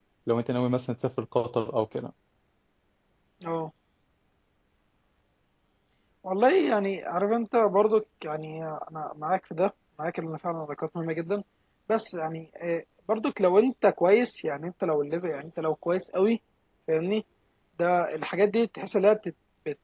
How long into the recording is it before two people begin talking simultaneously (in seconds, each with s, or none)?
none